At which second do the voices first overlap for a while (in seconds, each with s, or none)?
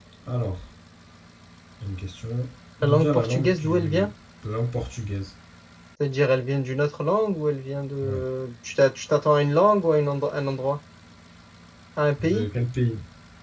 2.8 s